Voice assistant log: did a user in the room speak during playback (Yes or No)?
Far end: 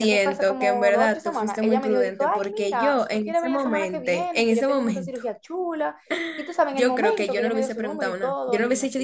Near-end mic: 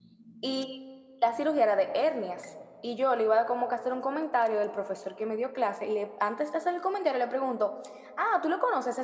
Yes